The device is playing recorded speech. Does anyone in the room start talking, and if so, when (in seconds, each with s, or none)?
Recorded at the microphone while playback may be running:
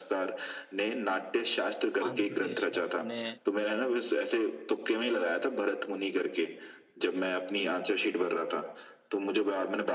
2.1 s